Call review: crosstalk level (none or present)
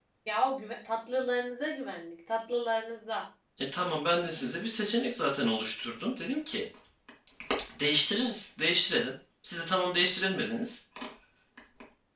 none